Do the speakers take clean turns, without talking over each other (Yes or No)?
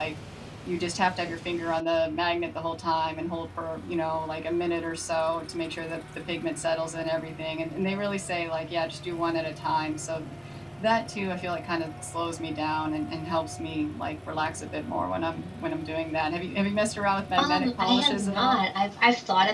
No